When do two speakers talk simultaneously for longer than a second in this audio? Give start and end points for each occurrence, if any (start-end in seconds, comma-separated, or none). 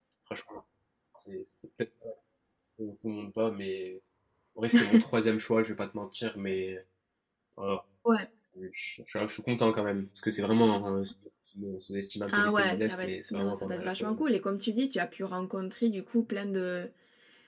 12.3-14.2